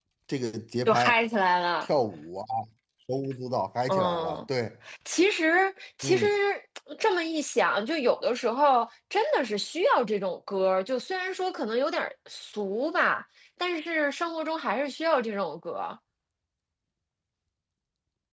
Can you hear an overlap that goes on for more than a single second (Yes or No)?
No